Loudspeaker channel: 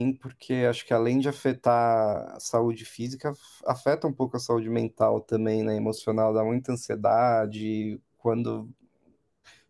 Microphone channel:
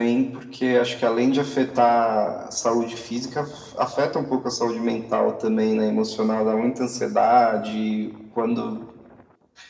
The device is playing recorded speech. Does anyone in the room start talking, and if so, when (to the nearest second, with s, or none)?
none